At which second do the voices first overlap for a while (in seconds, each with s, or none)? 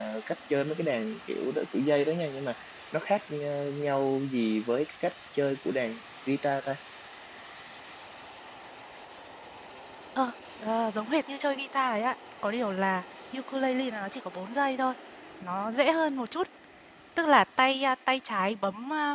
none